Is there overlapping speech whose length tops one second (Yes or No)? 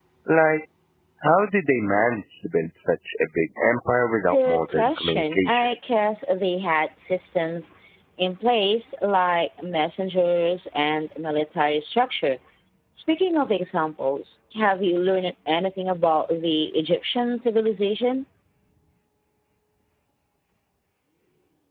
Yes